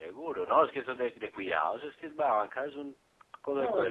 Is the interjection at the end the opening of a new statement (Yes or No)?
Yes